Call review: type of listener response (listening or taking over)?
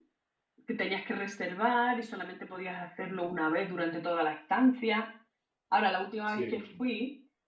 listening